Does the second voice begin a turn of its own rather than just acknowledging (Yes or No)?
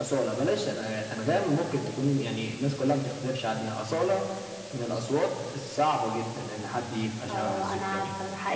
Yes